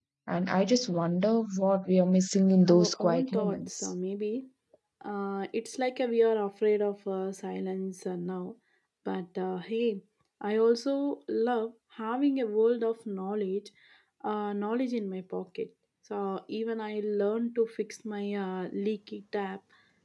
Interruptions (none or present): present